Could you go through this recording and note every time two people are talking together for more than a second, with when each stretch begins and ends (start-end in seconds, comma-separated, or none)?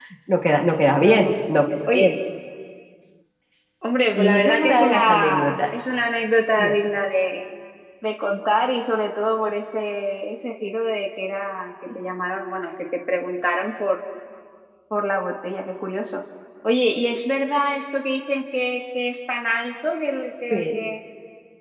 4.2-5.6